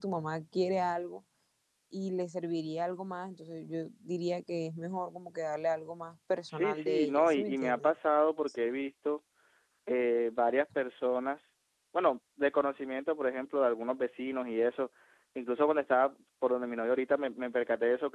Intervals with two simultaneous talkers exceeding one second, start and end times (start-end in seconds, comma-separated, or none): 6.5-7.9